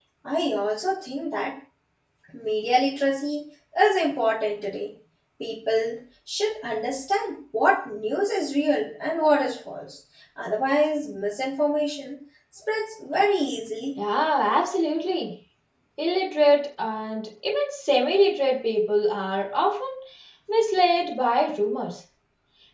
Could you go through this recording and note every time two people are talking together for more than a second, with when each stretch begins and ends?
none

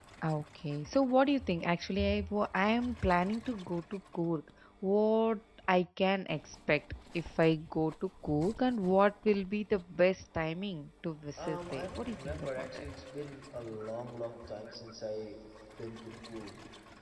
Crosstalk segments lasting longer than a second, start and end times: 11.4-12.9

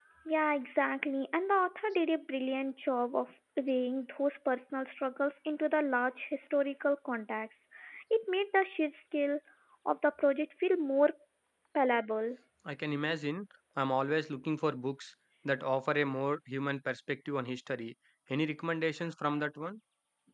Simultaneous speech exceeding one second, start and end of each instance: none

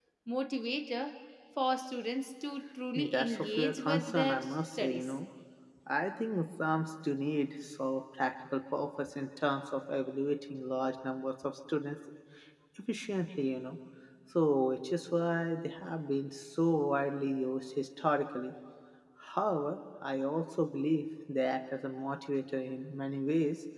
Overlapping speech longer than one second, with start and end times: 3.0-5.1

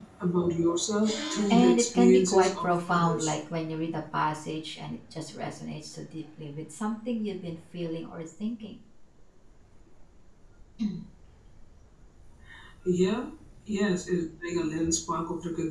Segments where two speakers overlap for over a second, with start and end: 1.5-3.4

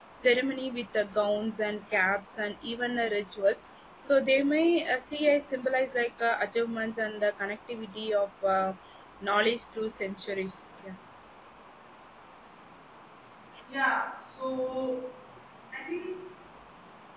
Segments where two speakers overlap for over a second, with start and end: none

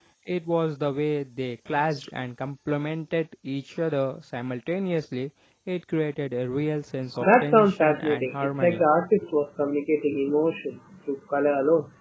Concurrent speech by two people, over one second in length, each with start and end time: 7.2-8.8

